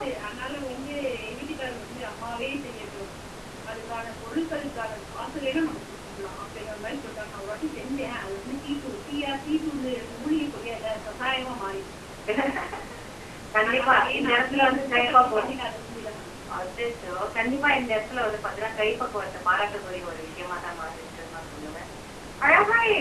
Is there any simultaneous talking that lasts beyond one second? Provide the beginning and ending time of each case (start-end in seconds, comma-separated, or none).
13.7-15.5